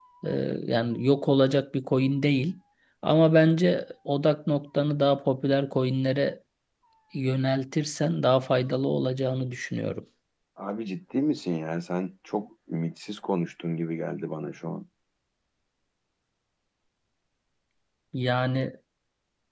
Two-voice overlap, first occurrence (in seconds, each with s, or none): none